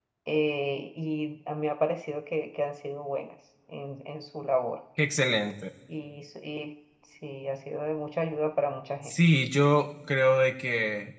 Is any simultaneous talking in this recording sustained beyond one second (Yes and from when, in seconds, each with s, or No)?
No